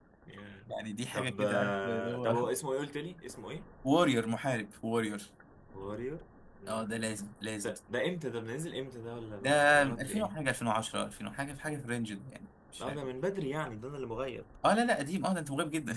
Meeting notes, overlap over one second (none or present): present